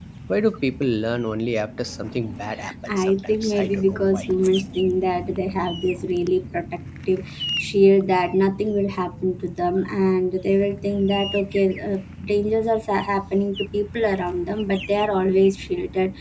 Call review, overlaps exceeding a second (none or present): present